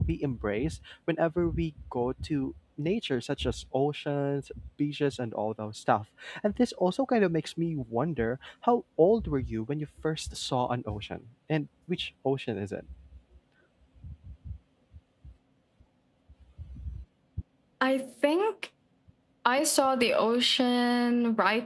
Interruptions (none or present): none